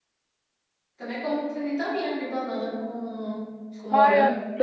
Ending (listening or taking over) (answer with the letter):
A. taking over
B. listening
A